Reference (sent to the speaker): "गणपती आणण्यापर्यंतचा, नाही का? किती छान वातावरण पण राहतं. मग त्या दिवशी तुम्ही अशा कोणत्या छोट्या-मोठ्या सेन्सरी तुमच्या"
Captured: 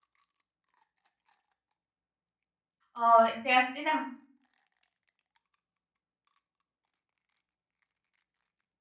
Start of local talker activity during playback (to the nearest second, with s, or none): 3 s